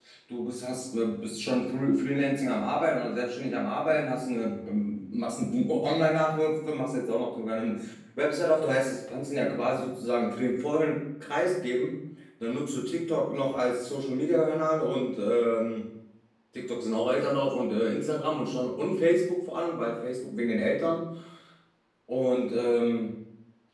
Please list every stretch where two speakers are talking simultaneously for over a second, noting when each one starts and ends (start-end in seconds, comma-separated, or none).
none